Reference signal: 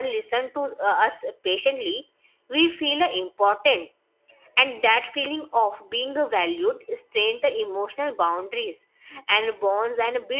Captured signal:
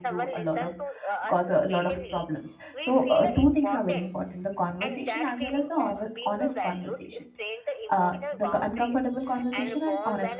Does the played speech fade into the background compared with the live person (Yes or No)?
Yes